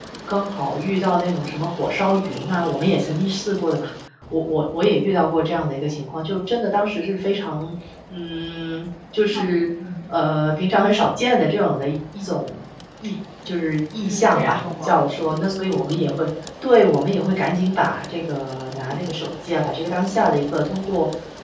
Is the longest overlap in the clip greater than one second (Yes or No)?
Yes